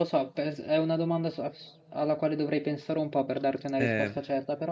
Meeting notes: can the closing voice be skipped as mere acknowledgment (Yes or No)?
Yes